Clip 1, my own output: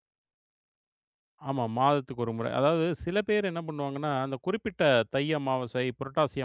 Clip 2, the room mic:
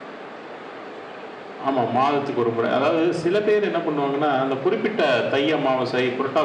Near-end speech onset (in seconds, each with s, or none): none